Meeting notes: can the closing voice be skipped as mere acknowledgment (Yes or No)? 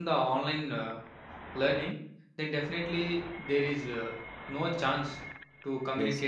Yes